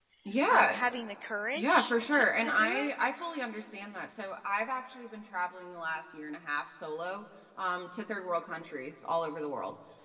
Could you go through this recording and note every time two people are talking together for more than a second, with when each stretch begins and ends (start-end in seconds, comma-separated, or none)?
1.6-2.9